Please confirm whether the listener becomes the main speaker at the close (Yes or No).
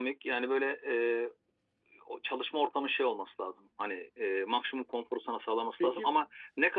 No